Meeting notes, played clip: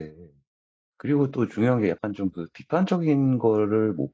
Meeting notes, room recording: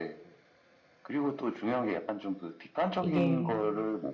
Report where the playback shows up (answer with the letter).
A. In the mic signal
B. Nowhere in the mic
A